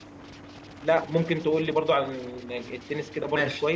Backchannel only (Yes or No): No